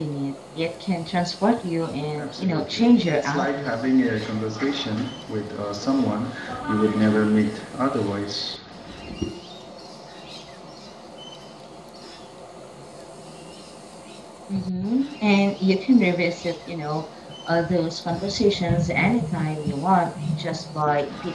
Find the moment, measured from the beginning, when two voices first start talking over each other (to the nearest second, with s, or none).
2 s